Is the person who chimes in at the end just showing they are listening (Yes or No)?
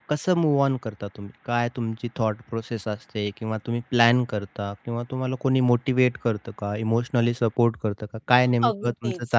No